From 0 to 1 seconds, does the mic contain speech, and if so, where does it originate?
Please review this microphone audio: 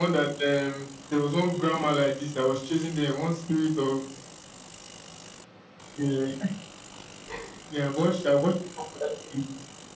echo only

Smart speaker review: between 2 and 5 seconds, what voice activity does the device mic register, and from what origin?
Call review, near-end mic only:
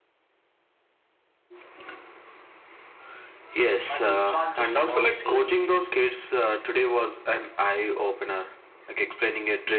both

